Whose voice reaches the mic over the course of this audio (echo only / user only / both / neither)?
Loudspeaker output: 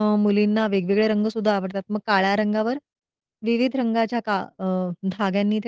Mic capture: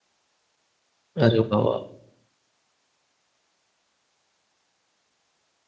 user only